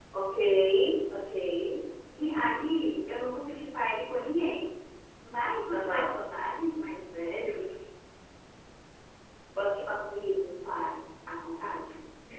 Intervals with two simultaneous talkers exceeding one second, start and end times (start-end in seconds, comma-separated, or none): none